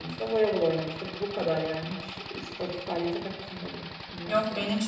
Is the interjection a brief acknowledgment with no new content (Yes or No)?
No